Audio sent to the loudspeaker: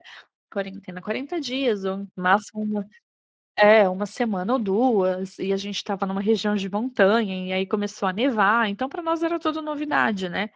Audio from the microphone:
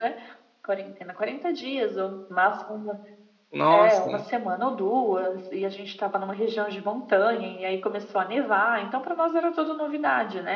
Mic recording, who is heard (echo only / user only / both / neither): both